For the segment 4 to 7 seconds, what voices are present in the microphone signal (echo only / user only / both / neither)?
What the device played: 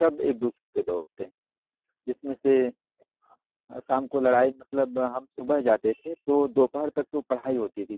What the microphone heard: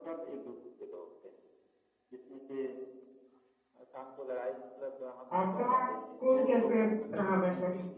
both